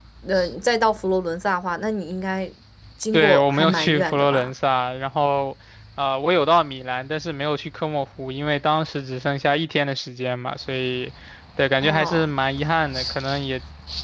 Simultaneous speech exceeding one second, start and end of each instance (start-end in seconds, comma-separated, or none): 3.1-4.5